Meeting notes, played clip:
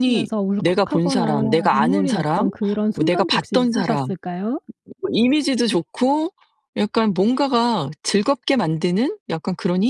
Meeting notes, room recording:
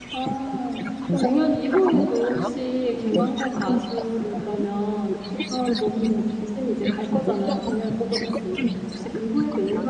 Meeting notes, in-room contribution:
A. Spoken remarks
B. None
A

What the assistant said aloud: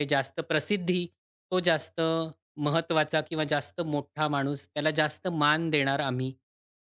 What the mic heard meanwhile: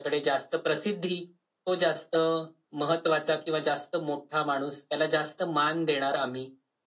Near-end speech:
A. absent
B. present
A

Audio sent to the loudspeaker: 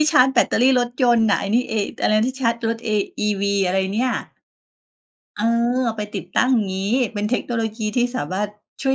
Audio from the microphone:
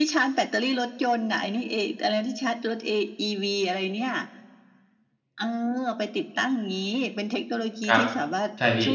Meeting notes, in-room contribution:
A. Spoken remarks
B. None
A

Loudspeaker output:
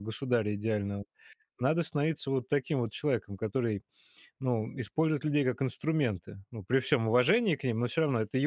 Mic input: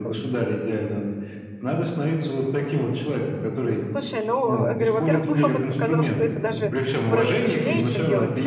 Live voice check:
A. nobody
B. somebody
B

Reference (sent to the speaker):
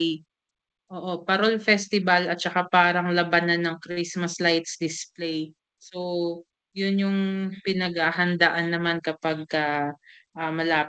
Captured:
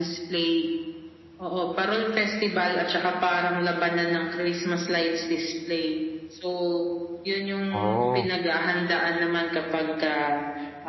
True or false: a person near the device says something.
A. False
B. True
B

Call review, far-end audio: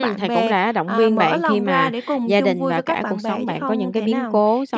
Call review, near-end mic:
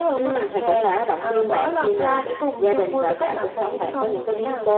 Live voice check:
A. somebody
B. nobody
B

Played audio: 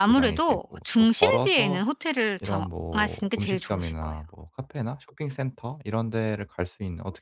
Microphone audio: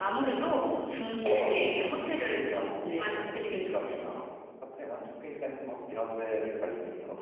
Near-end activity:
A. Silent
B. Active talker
B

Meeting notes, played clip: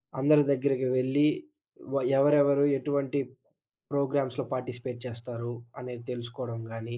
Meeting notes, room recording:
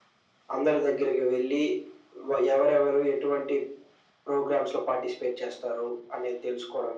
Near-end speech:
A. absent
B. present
A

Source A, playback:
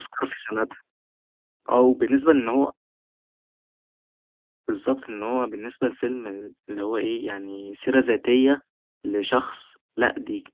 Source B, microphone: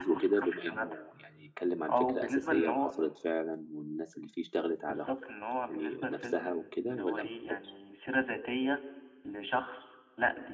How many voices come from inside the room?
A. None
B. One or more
B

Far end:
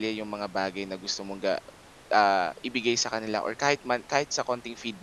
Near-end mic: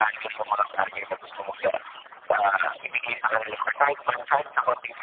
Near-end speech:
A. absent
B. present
A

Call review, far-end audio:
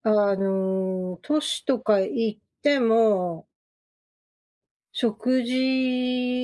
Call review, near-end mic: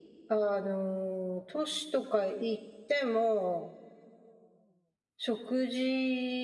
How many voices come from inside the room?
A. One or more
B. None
B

